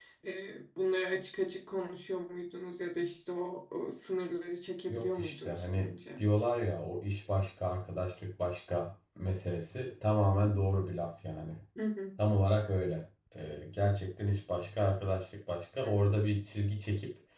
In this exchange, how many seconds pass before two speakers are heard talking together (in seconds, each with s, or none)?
4.9 s